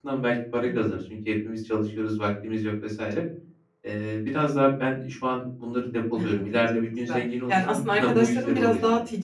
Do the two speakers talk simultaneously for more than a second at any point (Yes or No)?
Yes